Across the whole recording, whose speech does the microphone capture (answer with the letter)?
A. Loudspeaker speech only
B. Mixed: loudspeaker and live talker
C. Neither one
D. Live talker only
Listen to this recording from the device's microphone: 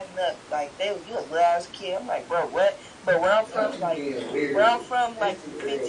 B